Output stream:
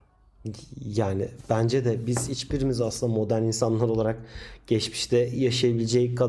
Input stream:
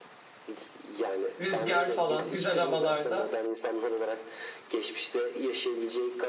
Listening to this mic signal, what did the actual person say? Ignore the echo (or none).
Rüzgar falan, güzel havalarda